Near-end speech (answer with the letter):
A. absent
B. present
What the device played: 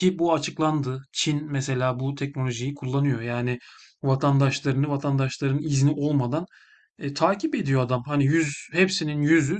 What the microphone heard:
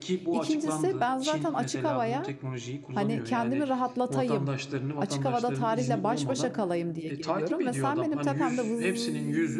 B